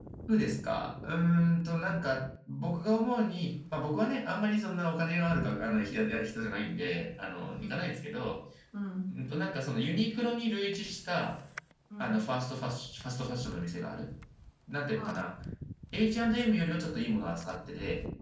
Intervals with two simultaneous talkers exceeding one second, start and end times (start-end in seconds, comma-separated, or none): none